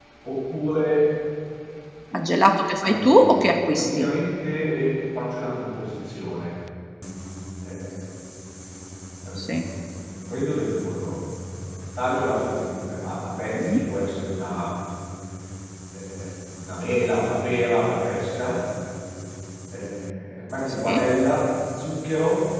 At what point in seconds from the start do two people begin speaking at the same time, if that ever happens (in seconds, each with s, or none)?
2.8 s